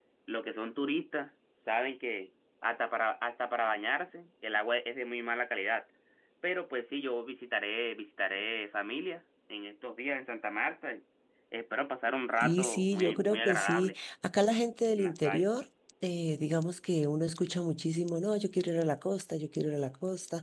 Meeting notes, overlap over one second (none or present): present